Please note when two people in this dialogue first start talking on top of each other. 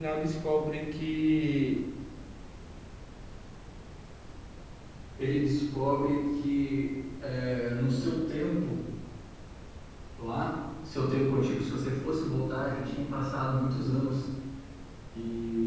none

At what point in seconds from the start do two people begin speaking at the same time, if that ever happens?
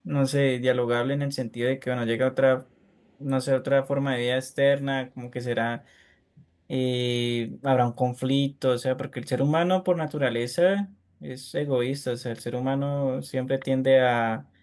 none

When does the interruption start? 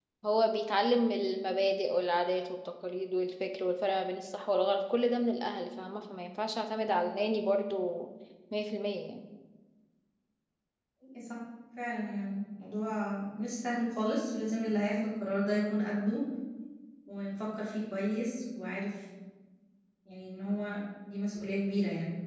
none

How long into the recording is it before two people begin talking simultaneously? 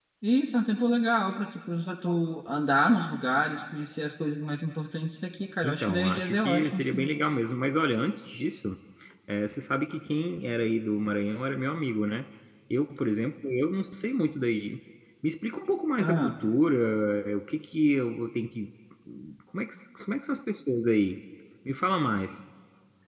6 s

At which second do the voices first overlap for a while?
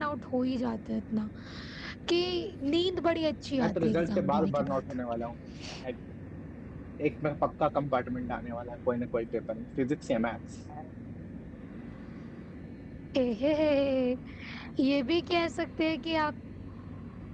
4 s

